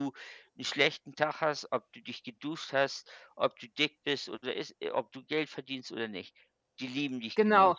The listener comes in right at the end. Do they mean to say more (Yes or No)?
Yes